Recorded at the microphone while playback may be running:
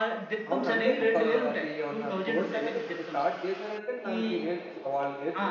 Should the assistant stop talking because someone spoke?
Yes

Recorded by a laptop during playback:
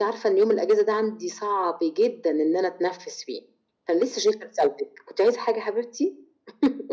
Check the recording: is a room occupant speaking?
No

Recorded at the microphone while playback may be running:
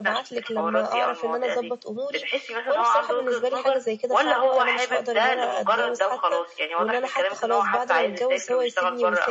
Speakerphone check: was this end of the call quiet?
No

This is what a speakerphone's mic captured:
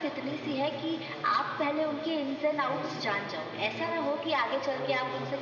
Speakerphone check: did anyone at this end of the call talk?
Yes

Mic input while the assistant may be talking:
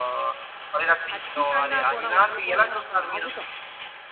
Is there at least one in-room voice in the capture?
Yes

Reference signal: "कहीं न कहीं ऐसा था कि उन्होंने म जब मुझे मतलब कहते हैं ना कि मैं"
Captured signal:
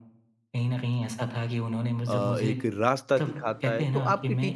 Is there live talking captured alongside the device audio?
Yes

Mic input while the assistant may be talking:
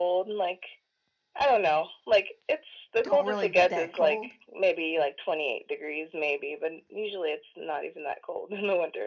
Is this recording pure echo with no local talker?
No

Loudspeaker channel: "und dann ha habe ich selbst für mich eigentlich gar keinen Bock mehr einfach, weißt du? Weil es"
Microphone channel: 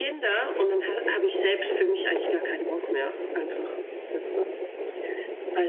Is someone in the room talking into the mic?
No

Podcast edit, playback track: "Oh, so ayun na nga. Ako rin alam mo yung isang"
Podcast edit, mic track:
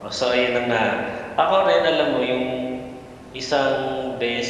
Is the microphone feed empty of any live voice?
Yes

